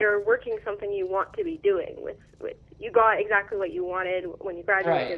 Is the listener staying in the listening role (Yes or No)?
Yes